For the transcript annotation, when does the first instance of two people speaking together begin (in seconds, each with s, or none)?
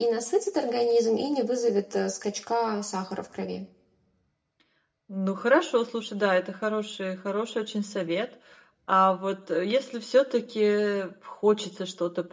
none